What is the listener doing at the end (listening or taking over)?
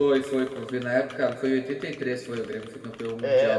taking over